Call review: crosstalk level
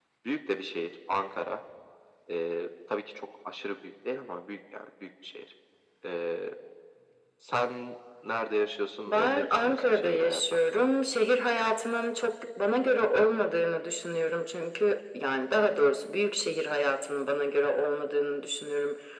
present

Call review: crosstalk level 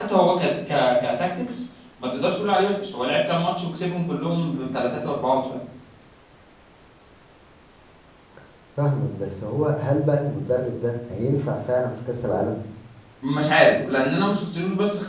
none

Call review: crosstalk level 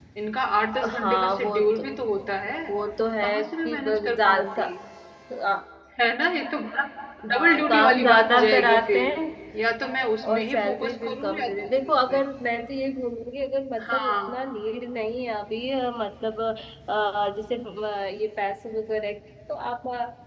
present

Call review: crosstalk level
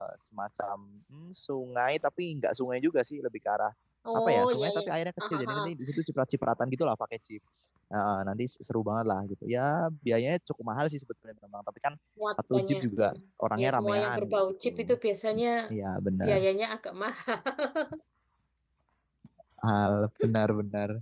present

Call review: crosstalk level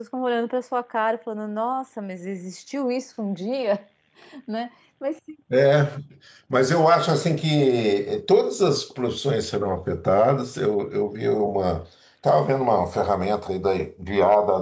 none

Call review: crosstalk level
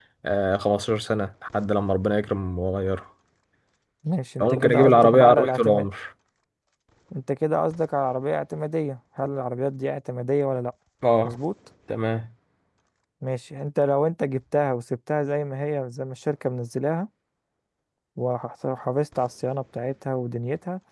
present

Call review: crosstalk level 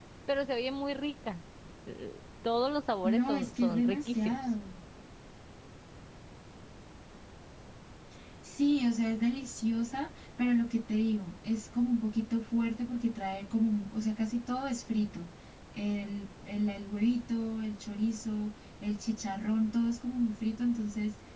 present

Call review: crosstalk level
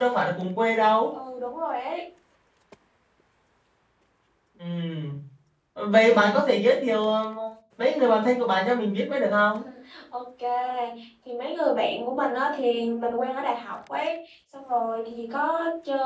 none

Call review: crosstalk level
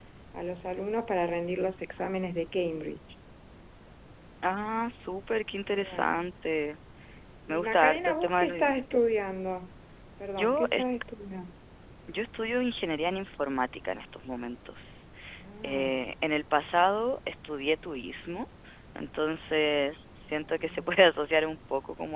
present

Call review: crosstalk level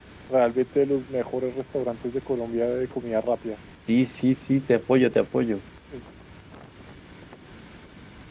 none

